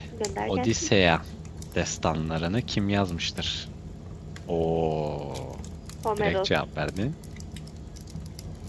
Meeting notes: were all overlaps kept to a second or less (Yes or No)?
Yes